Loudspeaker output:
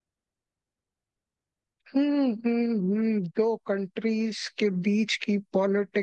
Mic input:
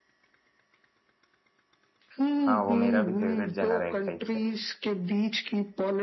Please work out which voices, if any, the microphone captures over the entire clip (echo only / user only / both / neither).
both